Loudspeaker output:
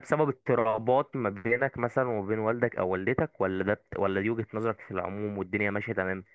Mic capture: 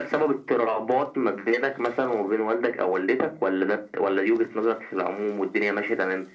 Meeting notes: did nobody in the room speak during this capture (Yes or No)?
Yes